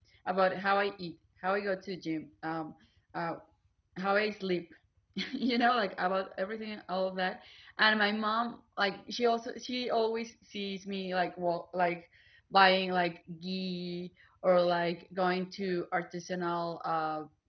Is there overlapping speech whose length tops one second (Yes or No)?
No